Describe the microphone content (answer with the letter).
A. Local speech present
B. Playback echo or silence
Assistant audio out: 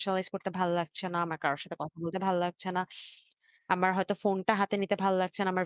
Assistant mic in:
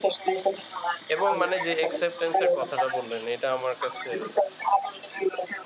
A